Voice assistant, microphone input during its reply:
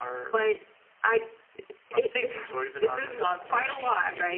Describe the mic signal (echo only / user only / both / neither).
both